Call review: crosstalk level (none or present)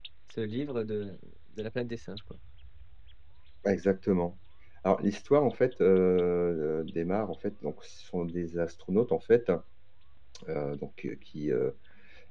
none